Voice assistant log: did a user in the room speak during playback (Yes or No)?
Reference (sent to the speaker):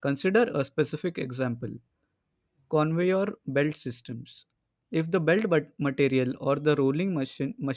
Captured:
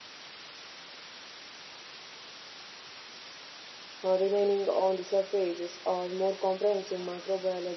Yes